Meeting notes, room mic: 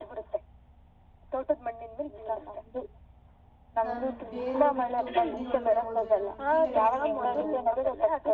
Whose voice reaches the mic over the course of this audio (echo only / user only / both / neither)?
both